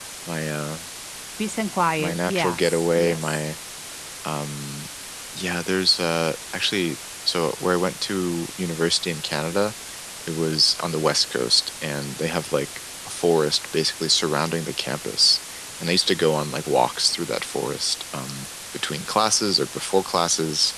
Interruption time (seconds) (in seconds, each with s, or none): 2.0 s